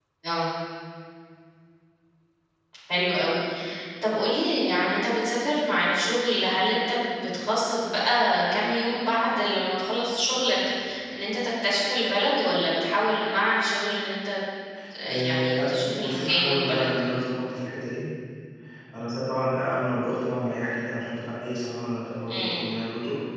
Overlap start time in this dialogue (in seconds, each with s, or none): 15.1 s